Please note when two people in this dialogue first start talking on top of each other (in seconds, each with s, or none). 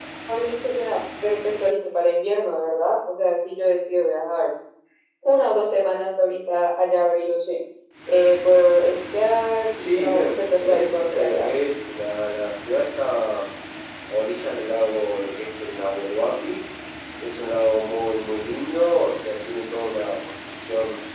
9.8 s